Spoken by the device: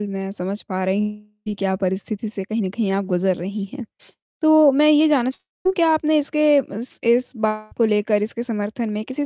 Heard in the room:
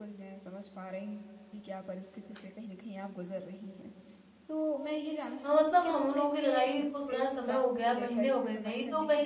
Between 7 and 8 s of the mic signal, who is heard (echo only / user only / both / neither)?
both